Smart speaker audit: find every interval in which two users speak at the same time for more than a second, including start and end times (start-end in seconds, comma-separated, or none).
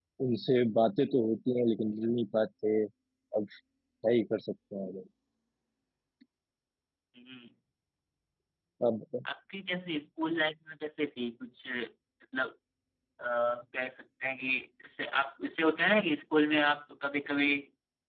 none